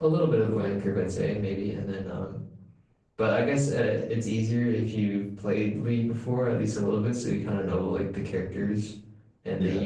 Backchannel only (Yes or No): Yes